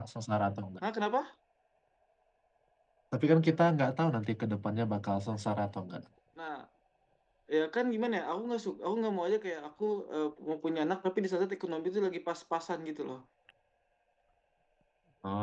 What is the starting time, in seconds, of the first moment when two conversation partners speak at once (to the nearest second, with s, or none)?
none